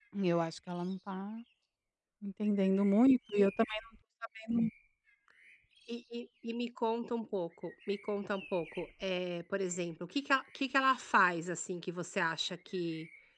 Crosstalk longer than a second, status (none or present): none